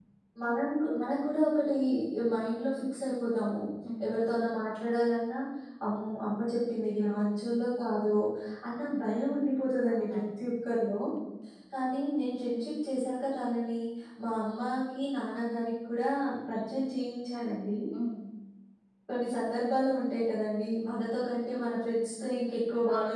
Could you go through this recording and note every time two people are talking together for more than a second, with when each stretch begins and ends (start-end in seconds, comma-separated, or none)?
none